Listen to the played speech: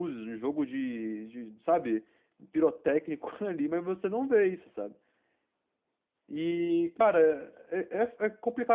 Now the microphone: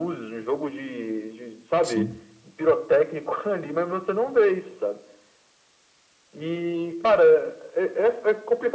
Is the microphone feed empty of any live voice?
No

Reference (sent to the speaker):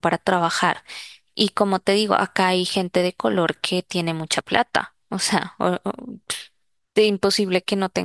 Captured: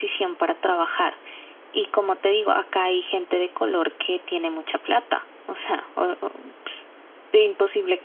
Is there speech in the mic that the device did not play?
No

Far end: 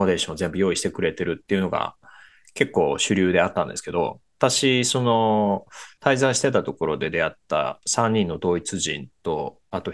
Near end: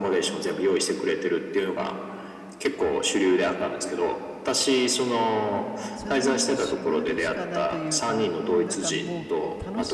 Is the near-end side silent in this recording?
No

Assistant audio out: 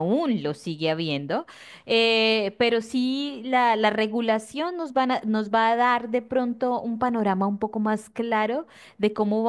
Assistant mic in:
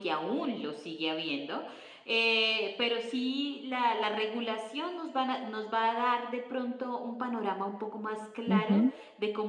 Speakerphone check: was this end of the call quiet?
No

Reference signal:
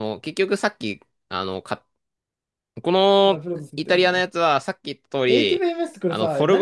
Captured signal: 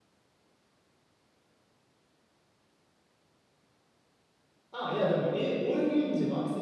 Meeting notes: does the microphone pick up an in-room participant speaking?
Yes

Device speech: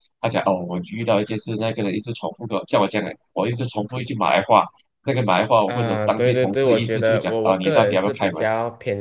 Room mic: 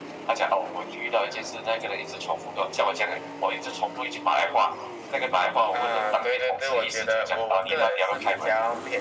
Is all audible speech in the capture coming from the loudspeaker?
Yes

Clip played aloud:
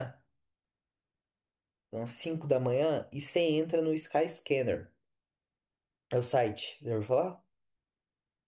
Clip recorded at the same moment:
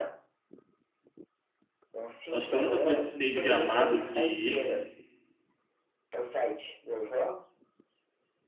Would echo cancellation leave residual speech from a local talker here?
Yes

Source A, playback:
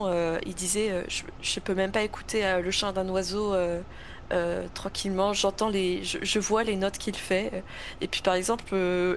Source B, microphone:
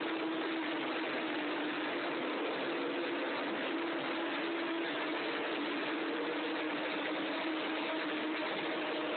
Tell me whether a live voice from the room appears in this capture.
No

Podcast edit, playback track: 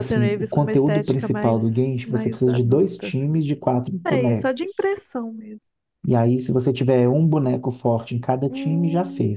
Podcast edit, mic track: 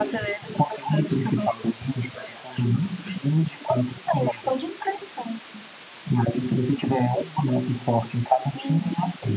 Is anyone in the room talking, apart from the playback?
No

